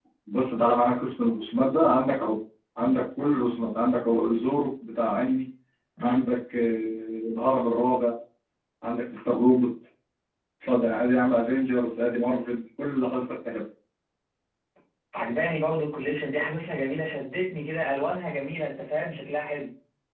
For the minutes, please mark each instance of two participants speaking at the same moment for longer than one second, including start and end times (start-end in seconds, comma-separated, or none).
none